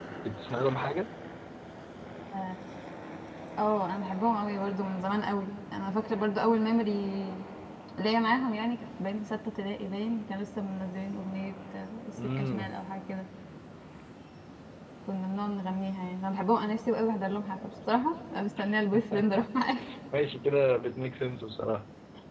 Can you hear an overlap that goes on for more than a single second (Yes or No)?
No